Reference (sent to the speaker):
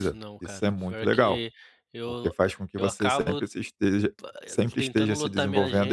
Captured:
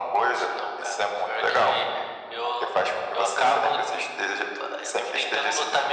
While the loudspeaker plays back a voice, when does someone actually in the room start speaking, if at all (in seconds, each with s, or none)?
none